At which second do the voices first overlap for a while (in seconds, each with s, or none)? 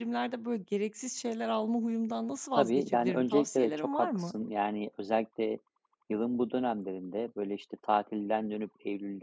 2.5 s